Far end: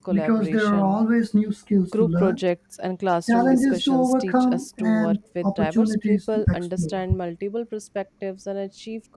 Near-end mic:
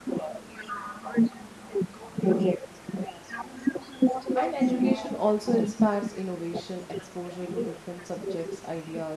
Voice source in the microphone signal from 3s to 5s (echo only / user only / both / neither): both